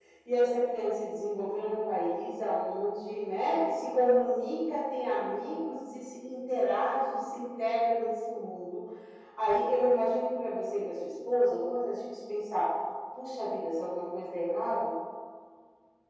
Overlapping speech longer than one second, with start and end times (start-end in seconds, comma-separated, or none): none